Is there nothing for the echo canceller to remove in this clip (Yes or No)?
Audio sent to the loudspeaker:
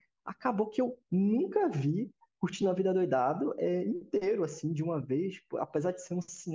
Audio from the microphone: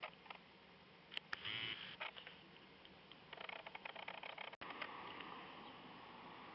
Yes